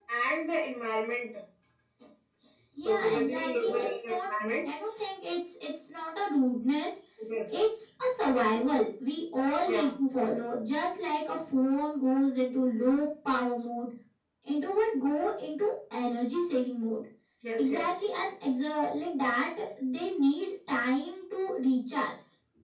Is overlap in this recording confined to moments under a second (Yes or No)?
No